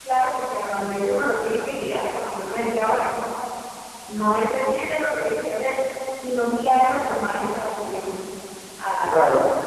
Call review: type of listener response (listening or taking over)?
taking over